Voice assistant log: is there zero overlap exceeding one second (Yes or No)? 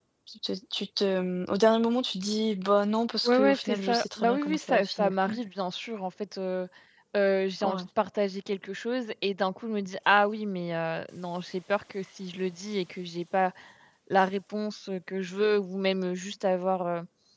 No